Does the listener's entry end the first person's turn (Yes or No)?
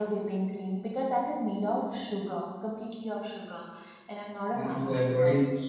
Yes